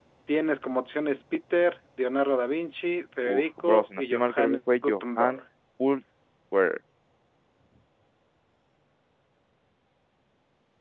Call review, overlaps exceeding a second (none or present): present